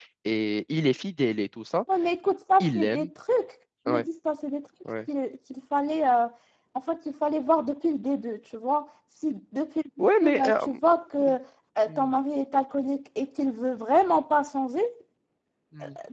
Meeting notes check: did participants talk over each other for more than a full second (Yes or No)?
No